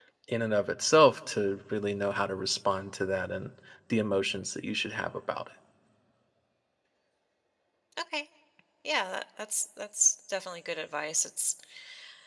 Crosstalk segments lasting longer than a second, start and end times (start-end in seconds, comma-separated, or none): none